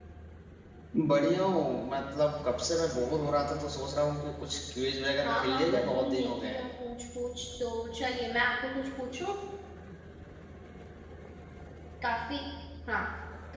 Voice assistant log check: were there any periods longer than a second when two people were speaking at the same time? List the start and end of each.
5.2-6.6

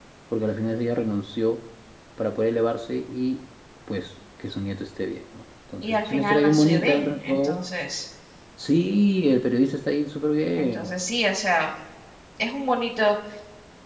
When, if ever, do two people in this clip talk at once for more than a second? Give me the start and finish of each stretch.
5.8-7.6

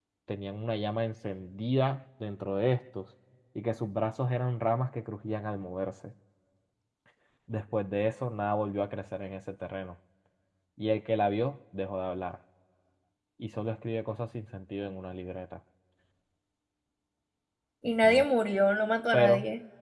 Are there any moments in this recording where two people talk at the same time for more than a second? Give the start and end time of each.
none

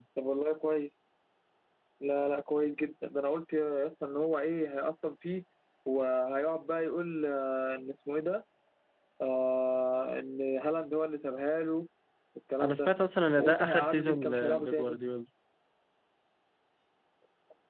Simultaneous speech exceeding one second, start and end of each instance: 13.4-15.0

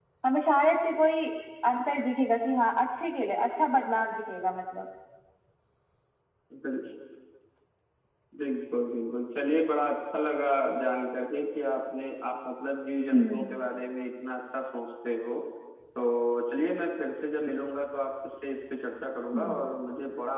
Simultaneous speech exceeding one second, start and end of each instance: none

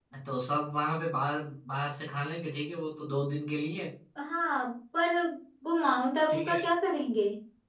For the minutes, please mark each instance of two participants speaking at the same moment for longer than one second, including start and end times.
none

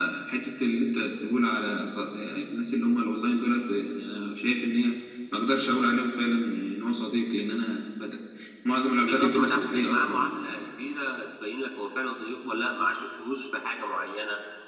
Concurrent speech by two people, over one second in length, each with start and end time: 9.0-10.6

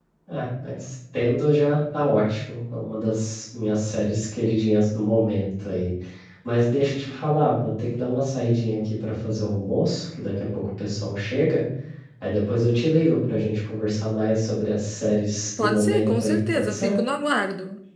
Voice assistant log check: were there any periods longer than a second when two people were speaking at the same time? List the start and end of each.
15.6-16.9

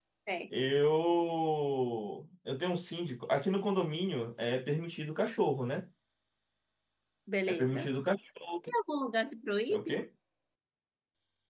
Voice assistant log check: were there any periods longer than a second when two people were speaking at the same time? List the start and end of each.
none

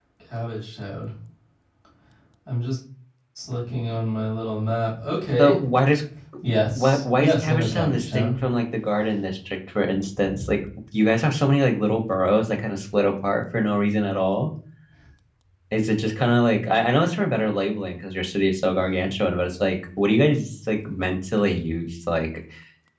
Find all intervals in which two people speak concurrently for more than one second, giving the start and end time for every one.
6.8-8.3

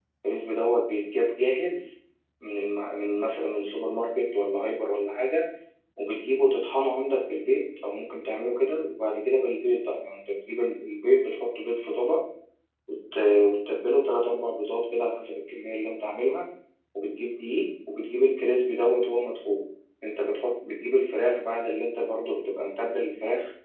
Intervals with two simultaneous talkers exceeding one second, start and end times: none

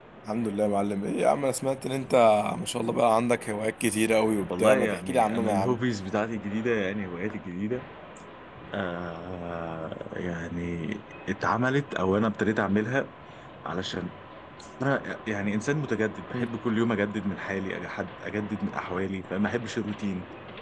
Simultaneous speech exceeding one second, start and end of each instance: 4.5-5.8

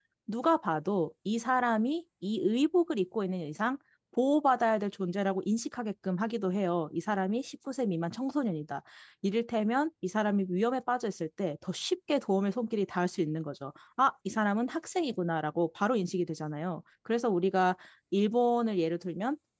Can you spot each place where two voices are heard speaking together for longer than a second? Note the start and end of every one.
none

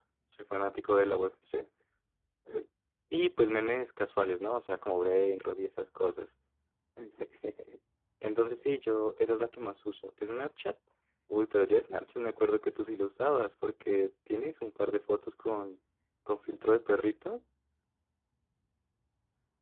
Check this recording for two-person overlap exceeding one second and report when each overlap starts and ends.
none

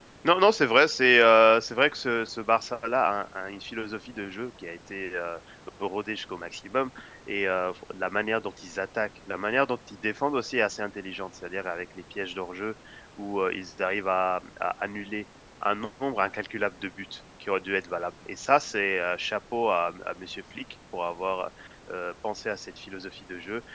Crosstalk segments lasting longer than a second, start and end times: none

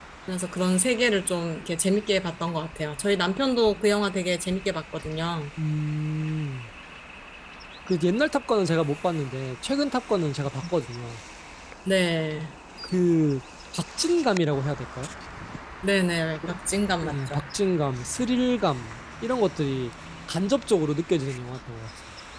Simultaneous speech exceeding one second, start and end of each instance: none

